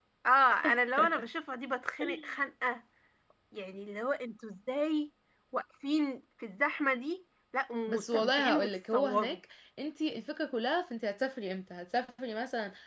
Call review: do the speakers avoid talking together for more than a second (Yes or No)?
No